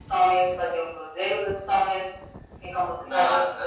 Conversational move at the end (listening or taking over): listening